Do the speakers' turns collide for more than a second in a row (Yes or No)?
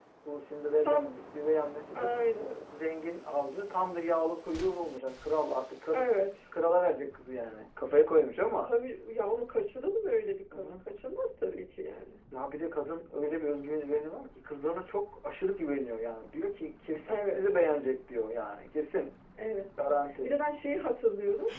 No